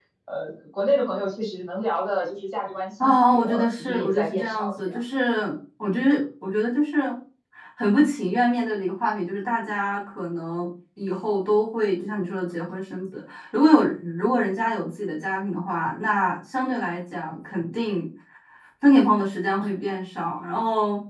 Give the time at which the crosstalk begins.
3.0 s

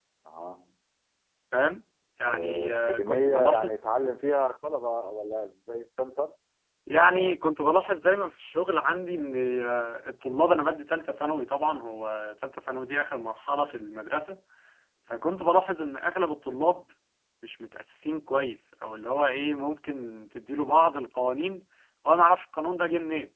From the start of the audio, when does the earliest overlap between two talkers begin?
2.3 s

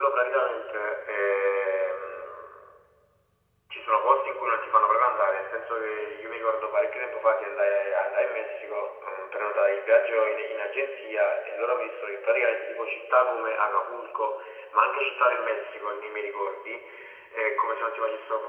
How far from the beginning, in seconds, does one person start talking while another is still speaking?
none

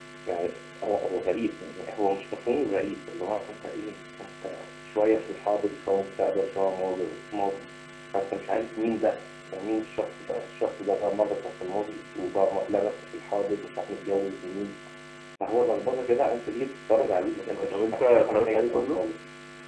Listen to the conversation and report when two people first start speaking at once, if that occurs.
16.9 s

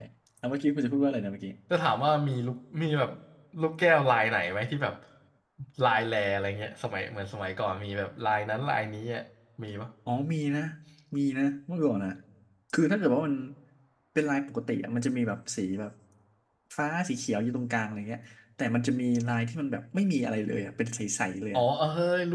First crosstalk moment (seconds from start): none

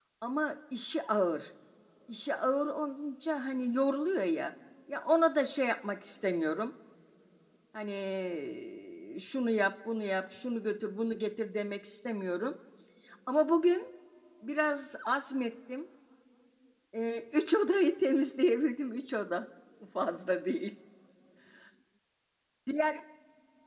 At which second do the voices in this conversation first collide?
none

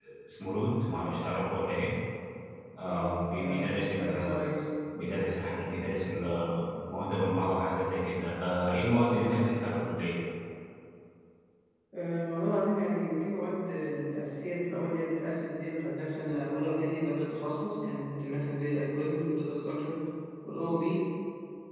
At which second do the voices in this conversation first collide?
2.9 s

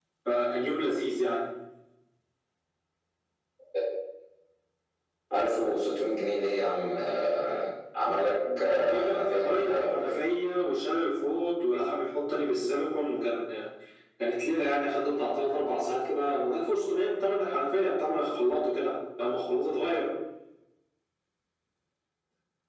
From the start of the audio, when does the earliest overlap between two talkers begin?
8.4 s

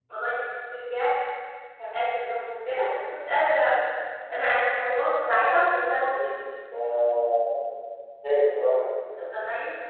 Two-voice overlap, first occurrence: none

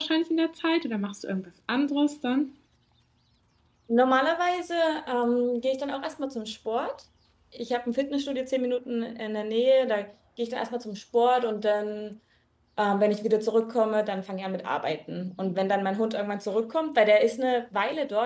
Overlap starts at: none

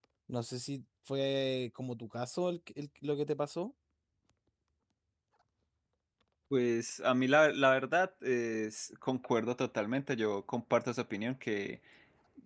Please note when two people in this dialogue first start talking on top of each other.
none

